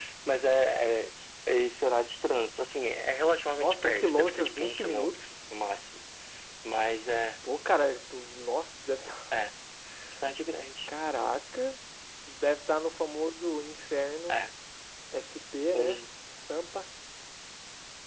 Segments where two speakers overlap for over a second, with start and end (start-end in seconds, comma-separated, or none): 3.6-5.3